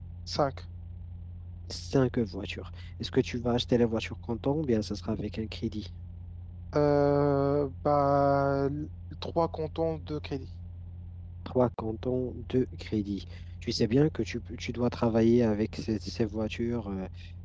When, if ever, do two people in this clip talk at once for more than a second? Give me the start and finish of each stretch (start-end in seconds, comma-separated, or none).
none